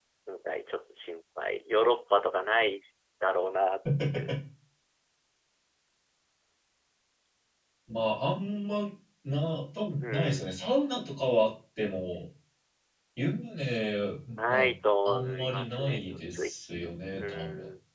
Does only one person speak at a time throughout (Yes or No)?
No